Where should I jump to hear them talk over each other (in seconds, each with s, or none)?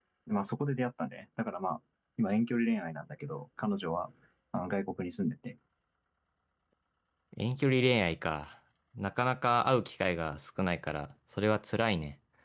none